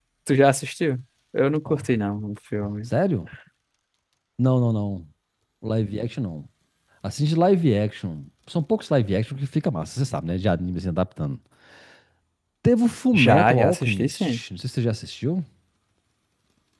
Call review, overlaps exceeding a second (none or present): present